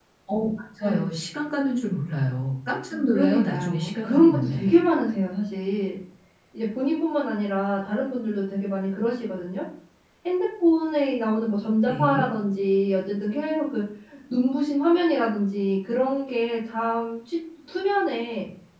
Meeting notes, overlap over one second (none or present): present